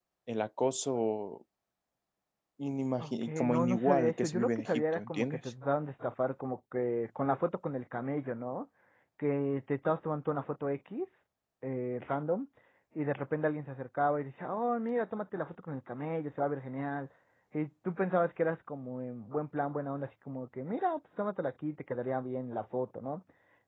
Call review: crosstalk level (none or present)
present